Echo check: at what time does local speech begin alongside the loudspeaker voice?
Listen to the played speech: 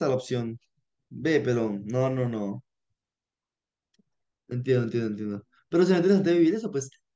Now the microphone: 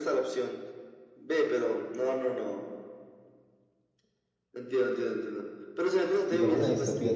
6.2 s

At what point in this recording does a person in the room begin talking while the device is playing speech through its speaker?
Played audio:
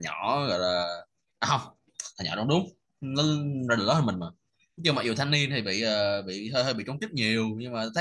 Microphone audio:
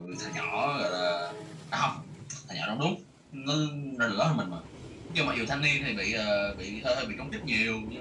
none

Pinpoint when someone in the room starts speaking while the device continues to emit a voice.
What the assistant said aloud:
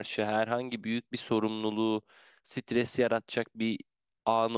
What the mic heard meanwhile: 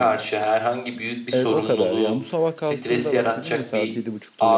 1.3 s

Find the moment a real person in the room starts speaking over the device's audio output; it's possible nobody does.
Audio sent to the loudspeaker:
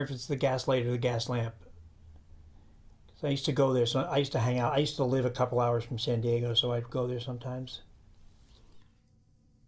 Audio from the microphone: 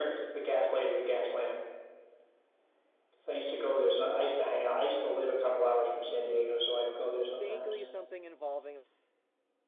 7.2 s

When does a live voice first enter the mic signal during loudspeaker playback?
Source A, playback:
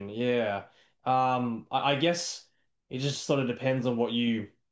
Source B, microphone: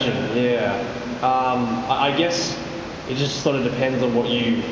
none

